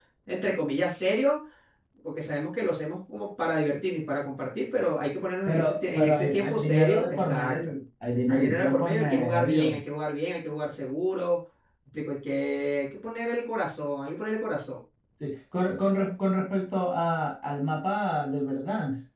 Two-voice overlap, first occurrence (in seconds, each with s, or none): 5.4 s